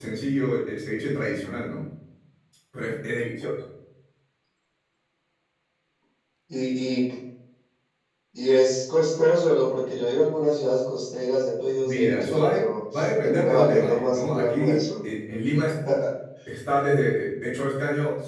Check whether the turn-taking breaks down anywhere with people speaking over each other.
Yes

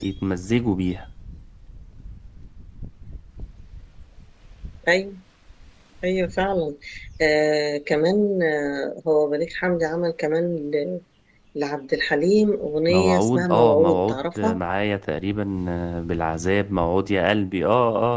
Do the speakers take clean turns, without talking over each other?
No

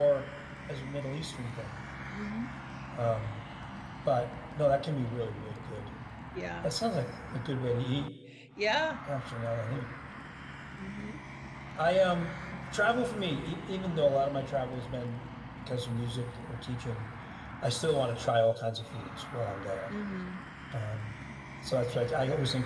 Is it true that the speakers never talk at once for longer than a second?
Yes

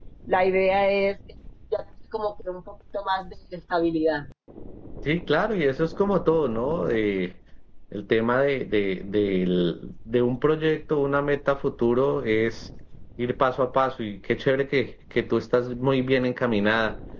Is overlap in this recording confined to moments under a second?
Yes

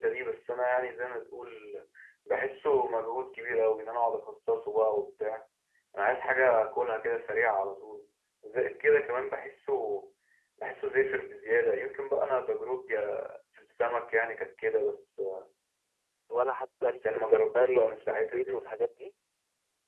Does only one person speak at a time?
No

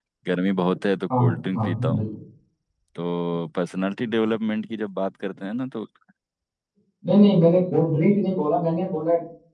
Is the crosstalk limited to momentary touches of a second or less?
Yes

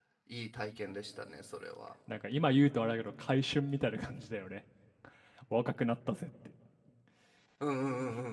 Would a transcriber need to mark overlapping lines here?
No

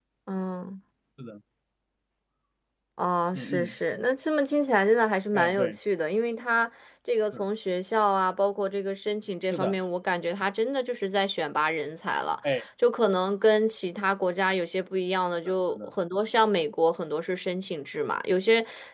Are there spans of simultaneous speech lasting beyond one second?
No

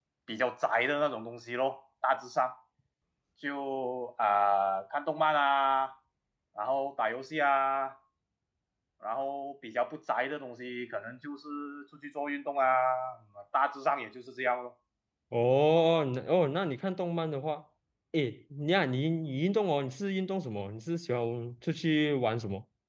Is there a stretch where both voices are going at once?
No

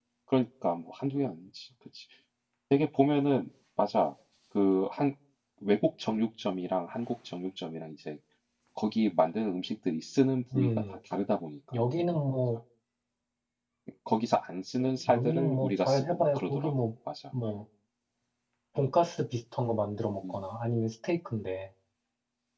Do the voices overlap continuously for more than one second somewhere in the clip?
Yes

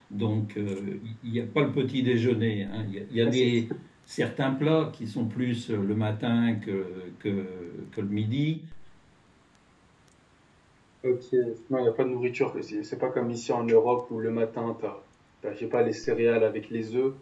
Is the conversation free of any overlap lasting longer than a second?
Yes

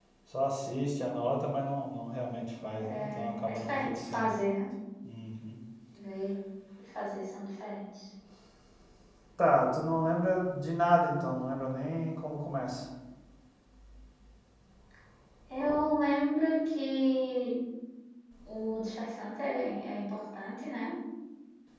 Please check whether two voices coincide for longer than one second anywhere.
Yes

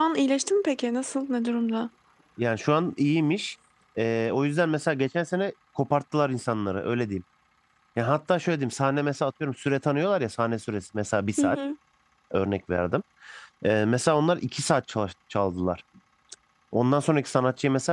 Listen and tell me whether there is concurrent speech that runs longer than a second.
No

